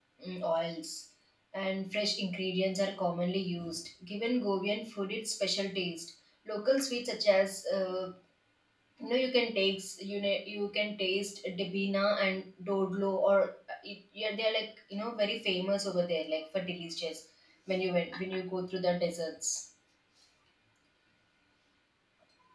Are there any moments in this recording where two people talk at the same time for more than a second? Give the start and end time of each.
none

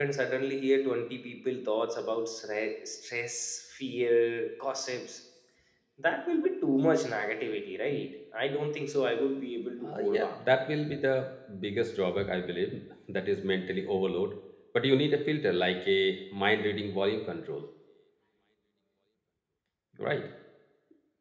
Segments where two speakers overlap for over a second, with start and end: none

